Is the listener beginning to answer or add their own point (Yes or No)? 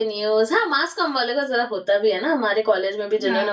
Yes